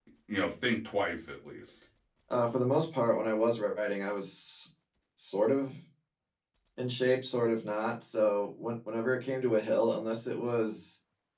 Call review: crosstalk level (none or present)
none